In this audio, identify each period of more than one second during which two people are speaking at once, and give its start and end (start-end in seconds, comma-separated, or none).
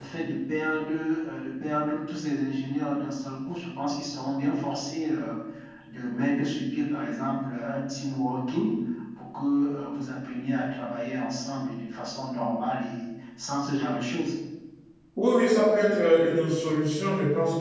none